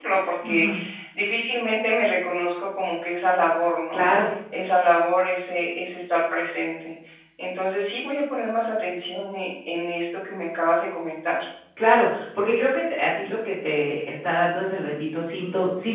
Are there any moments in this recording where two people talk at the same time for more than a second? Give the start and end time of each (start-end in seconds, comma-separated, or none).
none